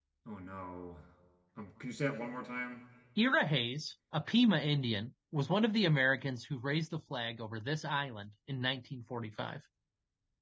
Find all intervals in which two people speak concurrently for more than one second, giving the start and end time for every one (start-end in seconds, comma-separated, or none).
none